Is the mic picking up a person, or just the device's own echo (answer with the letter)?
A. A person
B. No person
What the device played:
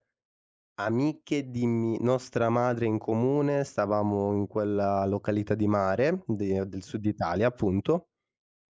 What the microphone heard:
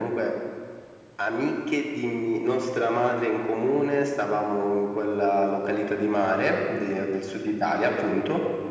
B